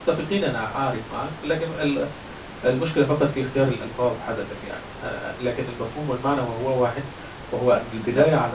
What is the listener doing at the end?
listening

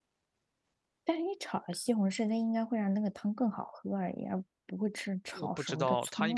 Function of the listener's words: taking over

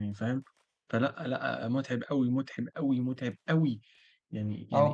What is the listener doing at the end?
taking over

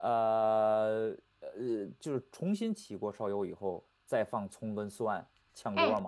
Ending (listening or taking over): taking over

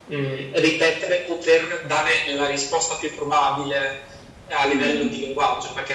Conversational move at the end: listening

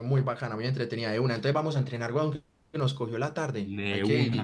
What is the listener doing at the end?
taking over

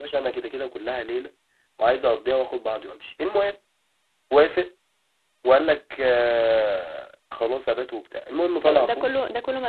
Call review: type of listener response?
taking over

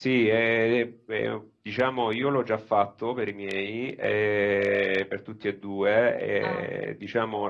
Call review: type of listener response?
listening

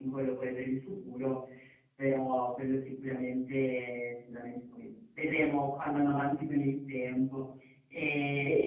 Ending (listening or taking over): listening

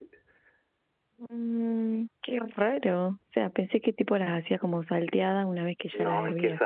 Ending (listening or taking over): taking over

